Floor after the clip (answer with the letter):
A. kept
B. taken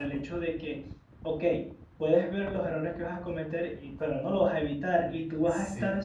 A